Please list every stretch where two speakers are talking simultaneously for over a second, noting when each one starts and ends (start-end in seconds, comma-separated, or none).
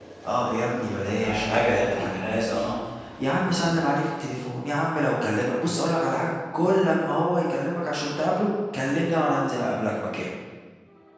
1.2-2.7